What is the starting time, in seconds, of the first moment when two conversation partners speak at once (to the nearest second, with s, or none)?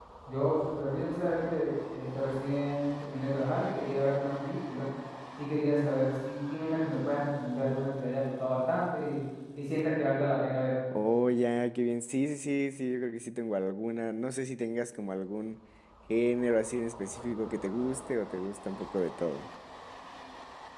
none